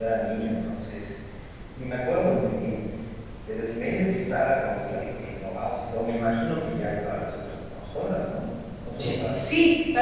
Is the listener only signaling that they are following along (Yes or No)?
No